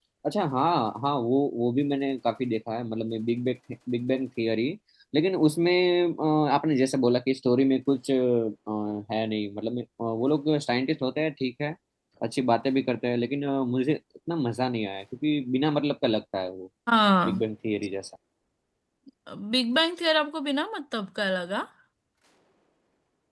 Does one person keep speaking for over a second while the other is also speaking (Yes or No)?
No